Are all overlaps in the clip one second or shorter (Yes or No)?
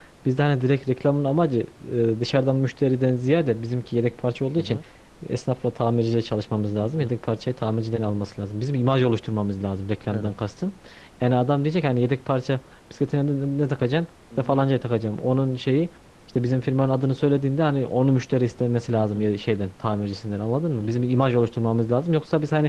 Yes